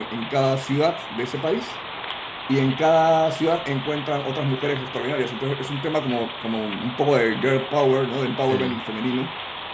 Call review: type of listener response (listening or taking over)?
listening